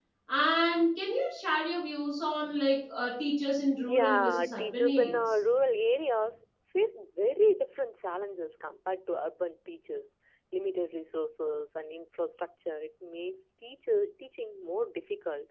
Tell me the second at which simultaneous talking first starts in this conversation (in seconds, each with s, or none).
3.9 s